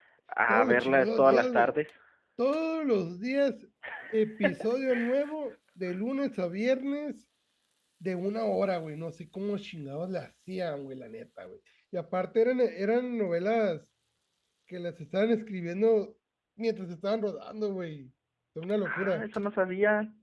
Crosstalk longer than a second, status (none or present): present